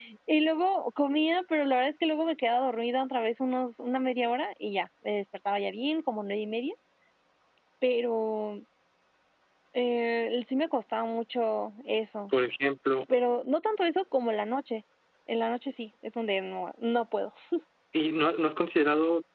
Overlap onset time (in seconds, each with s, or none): none